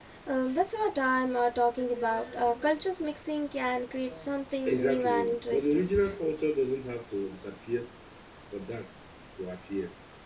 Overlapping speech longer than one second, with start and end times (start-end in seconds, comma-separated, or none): 4.7-5.9